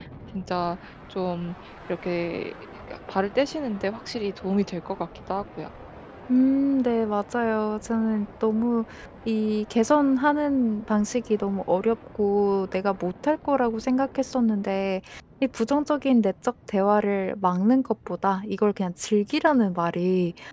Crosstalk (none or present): none